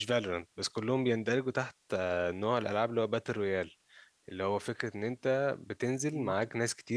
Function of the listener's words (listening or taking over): listening